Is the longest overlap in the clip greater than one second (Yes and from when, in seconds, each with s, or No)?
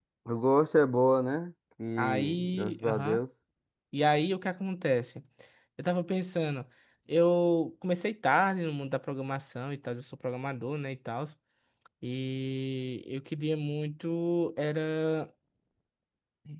Yes, from 2.0 s